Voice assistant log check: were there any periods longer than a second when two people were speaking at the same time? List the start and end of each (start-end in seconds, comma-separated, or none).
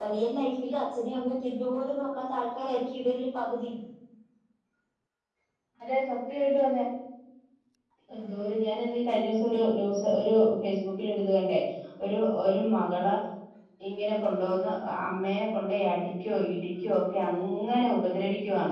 none